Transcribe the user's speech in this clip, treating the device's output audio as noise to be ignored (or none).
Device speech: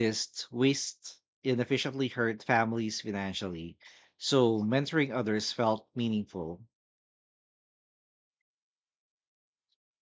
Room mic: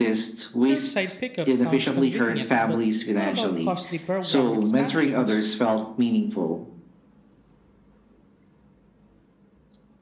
Curbside pickup sounds convenient, but what about costly program expansions?